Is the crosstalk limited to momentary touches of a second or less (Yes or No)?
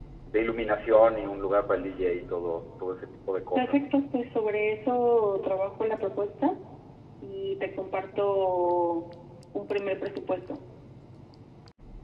Yes